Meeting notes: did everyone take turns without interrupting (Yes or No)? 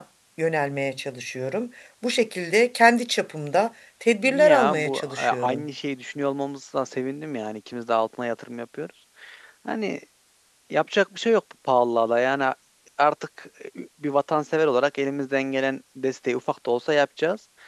No